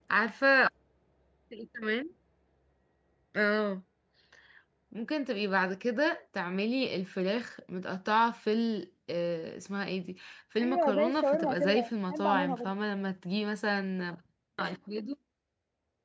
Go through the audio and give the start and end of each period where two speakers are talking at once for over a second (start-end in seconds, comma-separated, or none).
10.6-12.7